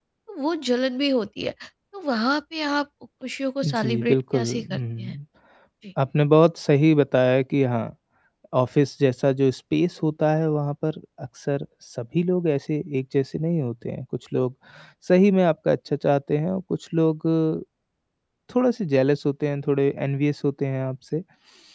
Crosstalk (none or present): present